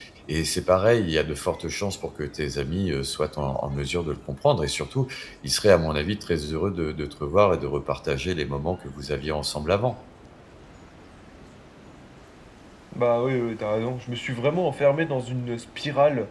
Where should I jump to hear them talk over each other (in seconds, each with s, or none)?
none